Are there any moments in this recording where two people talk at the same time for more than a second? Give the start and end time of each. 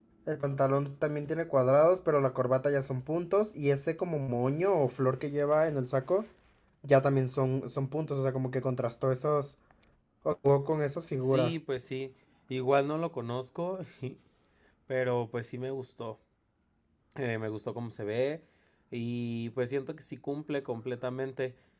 none

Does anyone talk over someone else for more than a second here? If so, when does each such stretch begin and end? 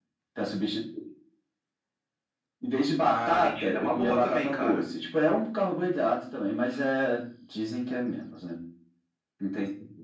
3.0-4.8

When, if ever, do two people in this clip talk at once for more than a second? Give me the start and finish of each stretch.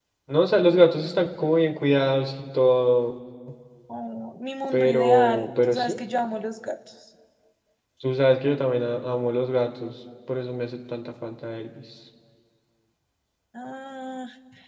4.7-6.0

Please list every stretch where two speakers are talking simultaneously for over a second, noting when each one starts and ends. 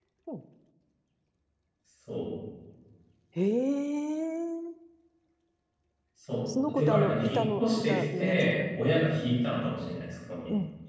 6.7-8.6

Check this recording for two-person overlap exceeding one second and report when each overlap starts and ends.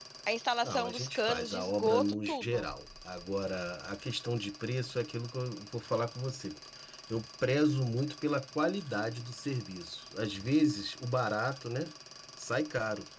0.6-2.6

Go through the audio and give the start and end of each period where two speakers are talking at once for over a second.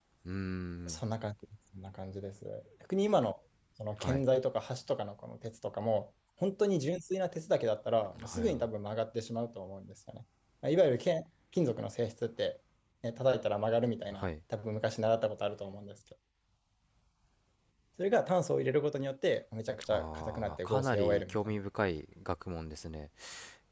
19.9-21.6

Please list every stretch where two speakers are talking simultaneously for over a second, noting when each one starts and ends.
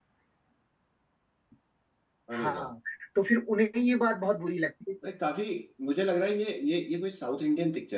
none

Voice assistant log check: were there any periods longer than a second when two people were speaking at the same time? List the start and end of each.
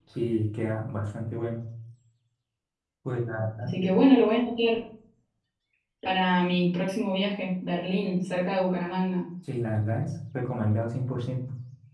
none

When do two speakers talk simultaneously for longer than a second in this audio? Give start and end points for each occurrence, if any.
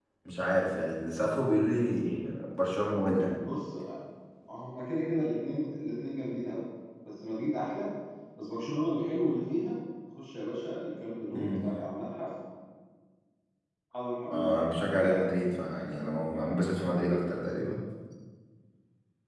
none

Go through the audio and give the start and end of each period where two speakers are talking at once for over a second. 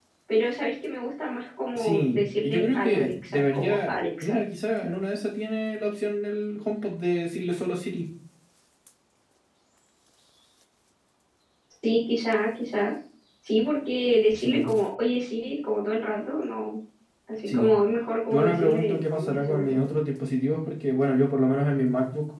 1.8-4.4, 18.3-19.8

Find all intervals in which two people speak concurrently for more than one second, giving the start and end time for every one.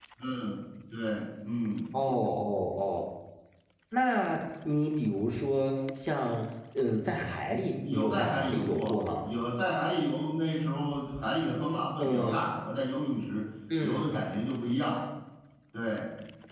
7.9-9.3

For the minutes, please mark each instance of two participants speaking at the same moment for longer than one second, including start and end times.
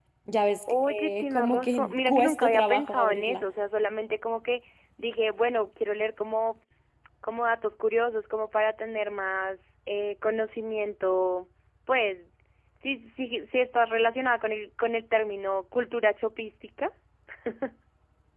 0.7-3.4

